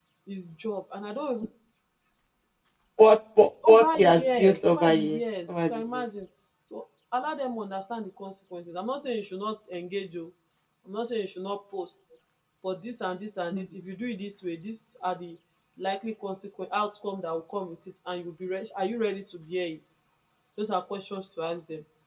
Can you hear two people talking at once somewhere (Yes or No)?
Yes